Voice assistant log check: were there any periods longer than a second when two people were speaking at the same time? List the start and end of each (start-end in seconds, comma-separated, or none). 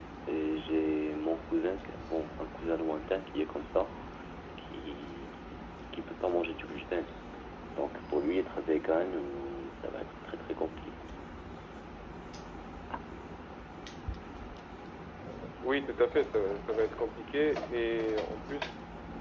none